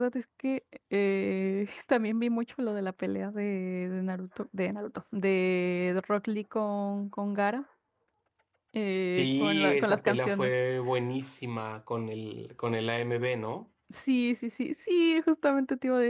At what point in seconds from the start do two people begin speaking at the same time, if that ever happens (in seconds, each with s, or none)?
9.2 s